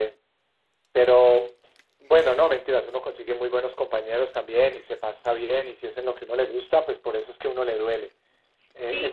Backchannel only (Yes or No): No